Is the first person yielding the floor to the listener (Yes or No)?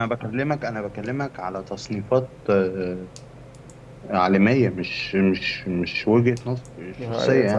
Yes